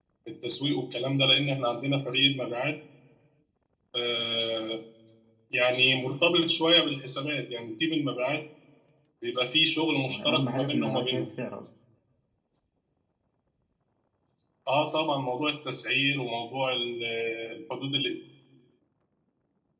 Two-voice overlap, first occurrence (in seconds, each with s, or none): 10.1 s